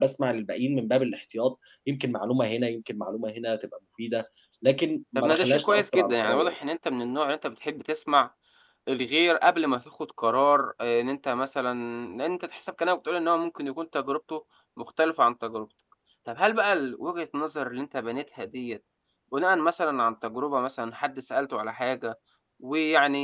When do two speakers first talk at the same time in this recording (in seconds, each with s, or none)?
5.2 s